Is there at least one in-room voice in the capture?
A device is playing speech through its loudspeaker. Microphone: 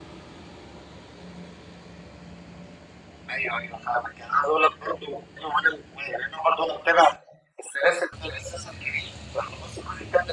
No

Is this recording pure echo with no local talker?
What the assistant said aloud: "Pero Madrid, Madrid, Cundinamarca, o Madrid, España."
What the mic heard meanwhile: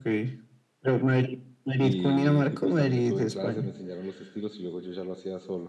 No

